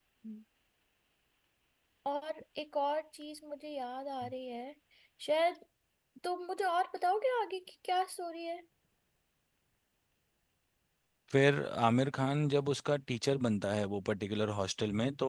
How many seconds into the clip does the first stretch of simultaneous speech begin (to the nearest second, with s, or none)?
none